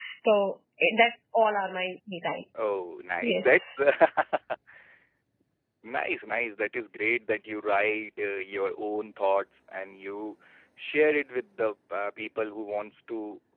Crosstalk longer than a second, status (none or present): none